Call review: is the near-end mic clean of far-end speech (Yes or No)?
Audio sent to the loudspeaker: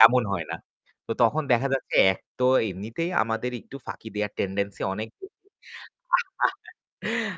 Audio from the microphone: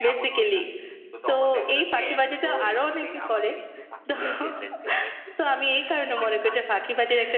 No